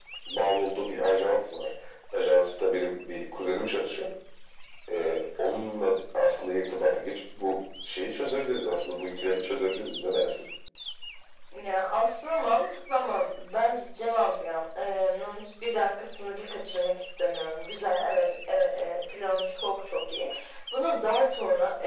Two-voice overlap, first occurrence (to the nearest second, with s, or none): none